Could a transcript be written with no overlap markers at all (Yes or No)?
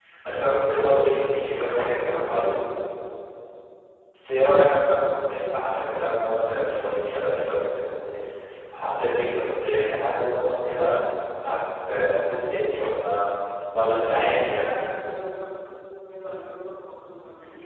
No